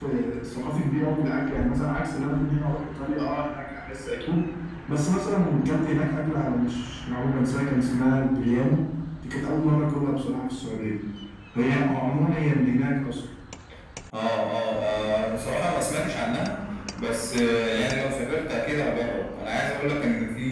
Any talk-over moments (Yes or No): No